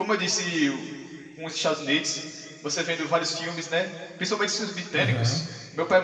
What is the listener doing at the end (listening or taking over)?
listening